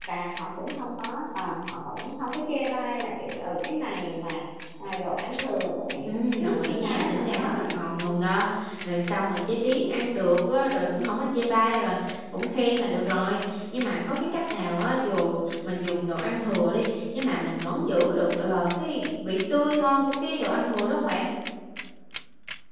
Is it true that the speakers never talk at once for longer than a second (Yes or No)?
No